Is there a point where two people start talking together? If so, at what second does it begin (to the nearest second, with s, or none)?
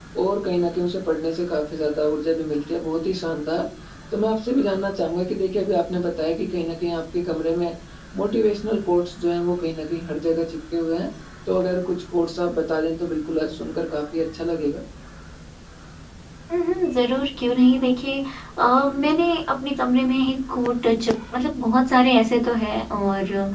none